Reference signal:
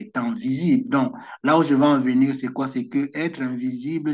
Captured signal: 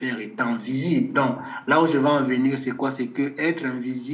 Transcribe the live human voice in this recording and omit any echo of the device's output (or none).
none